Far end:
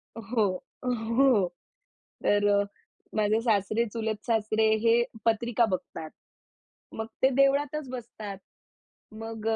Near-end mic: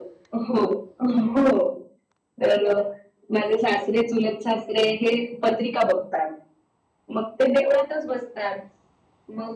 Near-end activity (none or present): none